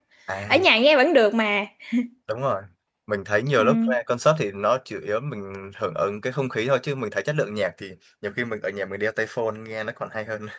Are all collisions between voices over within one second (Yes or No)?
Yes